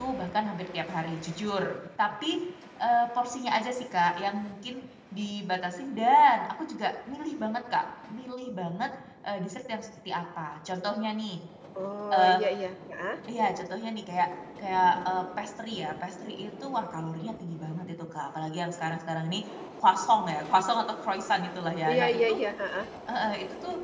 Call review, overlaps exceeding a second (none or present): none